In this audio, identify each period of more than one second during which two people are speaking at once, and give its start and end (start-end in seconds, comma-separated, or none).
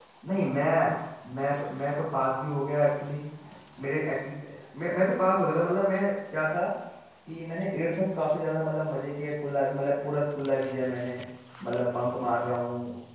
none